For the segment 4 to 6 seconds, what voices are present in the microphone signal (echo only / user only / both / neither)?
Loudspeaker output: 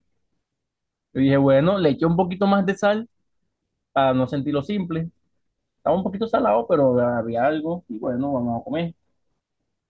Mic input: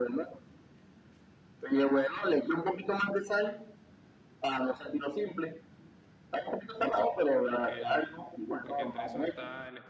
echo only